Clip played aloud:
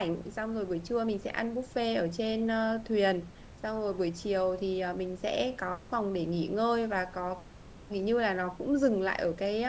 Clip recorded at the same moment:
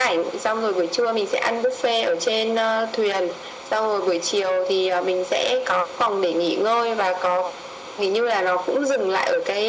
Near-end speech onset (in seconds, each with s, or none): none